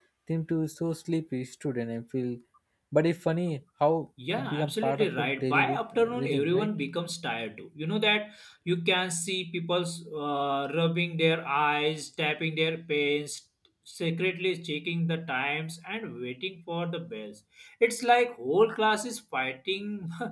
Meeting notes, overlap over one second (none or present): present